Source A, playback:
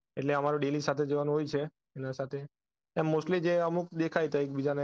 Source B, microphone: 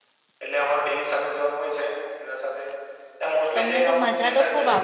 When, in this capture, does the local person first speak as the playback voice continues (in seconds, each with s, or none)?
3.5 s